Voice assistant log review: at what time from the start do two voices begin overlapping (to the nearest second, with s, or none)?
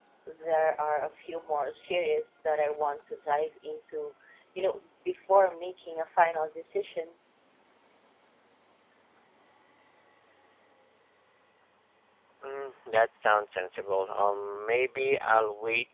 none